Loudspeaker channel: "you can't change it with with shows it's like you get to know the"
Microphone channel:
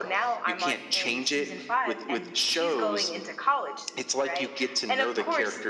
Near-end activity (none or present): present